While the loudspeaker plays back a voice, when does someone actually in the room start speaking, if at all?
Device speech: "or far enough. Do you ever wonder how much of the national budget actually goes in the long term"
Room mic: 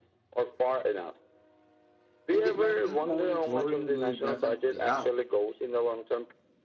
2 s

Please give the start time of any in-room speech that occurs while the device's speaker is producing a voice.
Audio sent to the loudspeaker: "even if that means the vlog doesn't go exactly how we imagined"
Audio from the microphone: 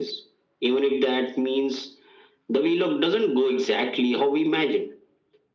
none

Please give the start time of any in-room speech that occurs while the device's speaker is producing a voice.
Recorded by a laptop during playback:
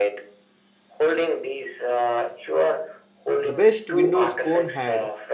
3 s

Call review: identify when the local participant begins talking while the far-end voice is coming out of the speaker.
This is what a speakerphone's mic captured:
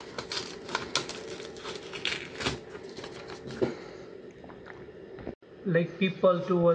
6 s

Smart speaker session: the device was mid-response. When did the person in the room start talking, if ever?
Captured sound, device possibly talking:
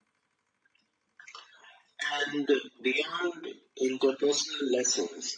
none

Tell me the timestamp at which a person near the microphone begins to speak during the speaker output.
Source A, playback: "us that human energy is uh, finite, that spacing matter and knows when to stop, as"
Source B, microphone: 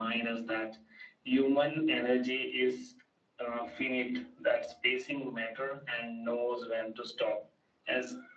none

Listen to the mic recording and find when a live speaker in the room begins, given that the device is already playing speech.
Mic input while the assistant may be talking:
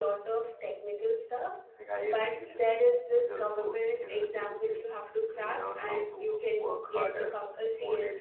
none

